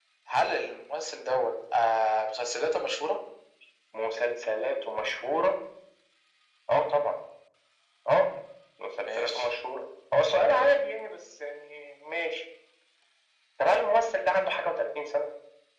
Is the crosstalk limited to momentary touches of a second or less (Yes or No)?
Yes